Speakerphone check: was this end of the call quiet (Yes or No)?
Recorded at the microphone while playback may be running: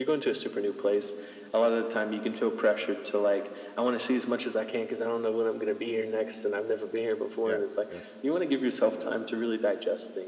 No